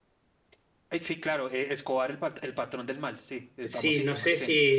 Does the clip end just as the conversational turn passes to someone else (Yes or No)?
Yes